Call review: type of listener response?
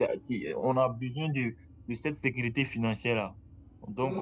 taking over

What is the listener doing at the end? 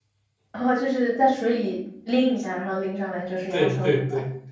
taking over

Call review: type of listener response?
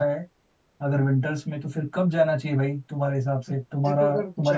taking over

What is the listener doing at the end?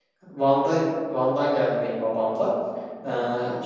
listening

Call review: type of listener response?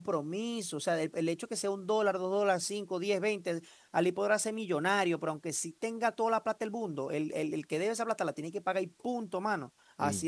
listening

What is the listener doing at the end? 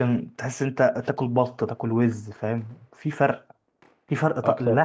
listening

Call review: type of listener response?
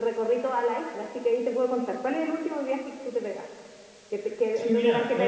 taking over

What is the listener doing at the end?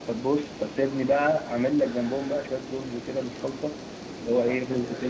listening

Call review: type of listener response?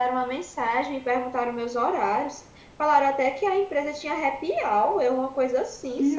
taking over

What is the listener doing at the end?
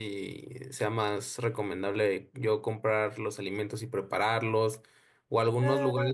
listening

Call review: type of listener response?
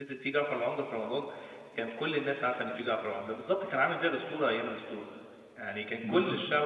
listening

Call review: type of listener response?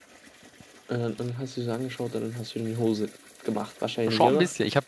taking over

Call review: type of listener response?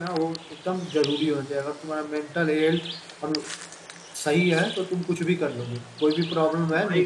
listening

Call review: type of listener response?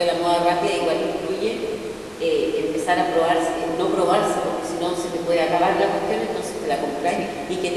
listening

